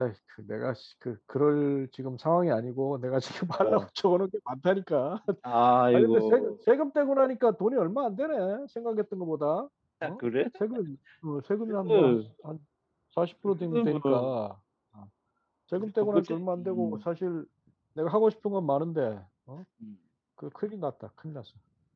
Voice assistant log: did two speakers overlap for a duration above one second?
Yes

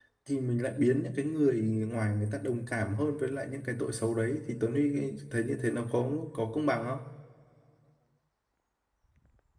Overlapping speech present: No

